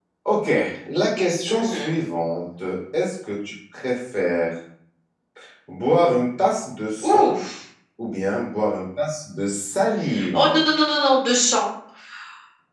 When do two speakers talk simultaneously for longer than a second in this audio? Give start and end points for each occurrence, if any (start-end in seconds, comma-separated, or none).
none